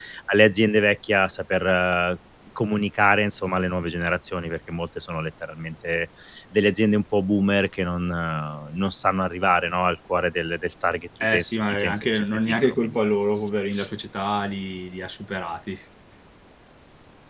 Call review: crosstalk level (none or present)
present